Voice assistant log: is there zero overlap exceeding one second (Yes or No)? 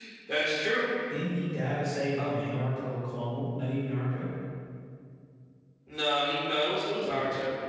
Yes